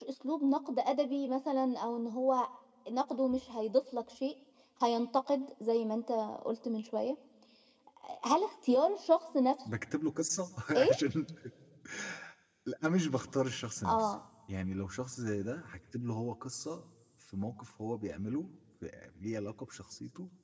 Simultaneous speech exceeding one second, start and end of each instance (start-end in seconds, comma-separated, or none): none